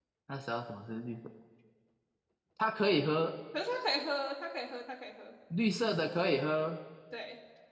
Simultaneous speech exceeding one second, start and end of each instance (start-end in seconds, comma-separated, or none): none